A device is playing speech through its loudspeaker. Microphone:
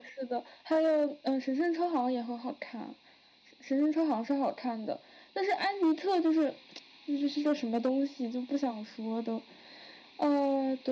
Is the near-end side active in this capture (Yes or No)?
No